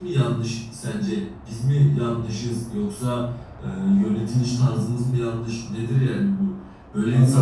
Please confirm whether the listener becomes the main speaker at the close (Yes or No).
No